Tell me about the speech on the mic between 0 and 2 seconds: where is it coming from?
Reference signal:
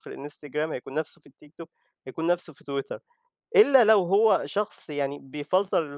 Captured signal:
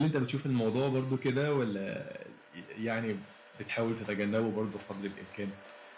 user only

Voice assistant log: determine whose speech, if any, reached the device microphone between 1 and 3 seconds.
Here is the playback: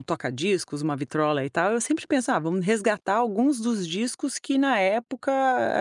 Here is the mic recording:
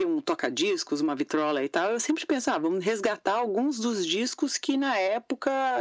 echo only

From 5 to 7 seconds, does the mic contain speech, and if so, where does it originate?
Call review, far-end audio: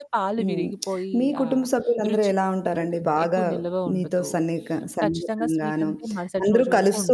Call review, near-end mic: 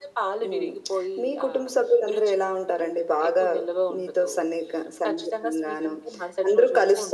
echo only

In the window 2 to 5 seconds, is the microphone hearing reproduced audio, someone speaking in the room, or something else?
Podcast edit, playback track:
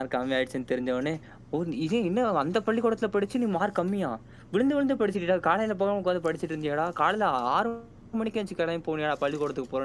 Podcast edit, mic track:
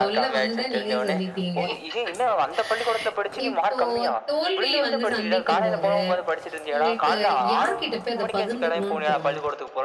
both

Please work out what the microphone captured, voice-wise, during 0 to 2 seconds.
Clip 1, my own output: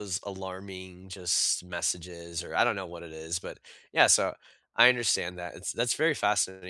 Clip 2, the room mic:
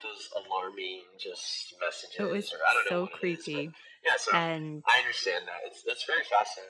echo only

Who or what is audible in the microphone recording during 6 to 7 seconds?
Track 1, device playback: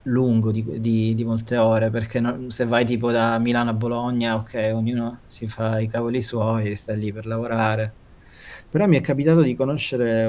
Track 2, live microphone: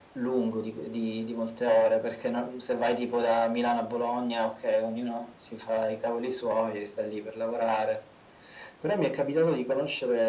echo only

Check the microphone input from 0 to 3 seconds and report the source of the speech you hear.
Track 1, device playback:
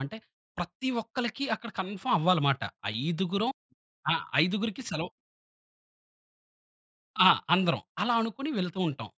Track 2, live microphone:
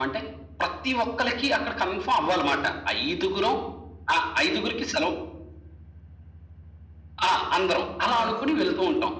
echo only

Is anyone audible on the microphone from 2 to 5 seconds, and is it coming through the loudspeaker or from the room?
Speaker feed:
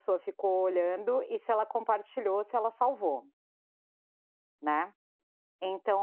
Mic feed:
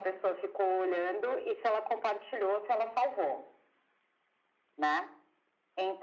echo only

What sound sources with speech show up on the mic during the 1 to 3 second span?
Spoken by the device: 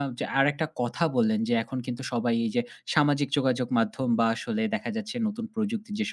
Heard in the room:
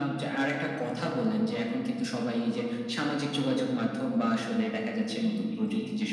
echo only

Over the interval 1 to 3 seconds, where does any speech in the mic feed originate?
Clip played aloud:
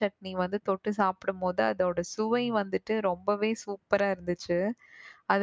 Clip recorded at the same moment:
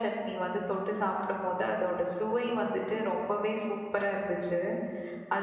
echo only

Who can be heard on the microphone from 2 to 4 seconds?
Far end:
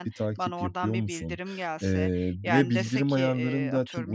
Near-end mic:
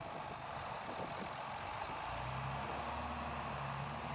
neither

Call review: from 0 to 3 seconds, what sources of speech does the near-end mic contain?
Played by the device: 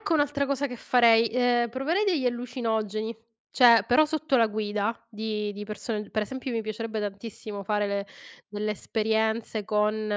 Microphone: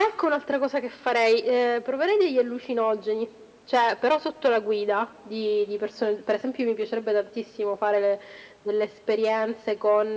echo only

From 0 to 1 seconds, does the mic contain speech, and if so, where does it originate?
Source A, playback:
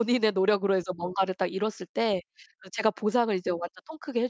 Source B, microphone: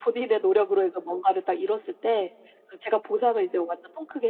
echo only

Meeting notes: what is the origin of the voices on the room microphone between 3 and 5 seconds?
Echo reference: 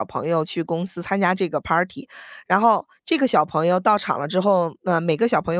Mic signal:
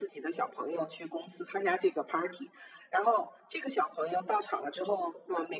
echo only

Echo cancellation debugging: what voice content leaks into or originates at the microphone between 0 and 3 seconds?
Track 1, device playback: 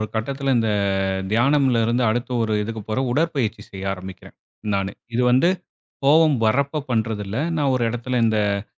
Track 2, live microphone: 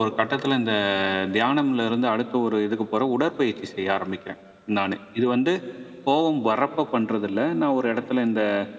echo only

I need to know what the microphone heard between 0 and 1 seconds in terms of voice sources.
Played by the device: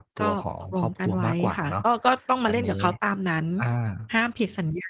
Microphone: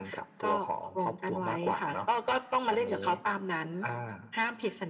echo only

